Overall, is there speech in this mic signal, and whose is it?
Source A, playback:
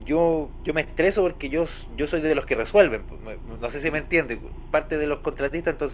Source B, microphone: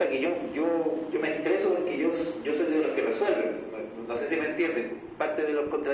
echo only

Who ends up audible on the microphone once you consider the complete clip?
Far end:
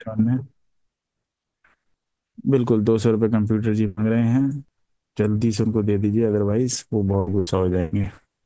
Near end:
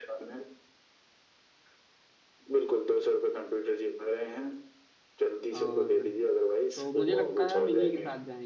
both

